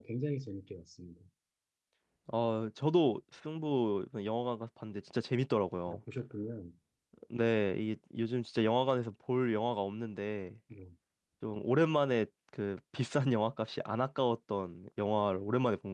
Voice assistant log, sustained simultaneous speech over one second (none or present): none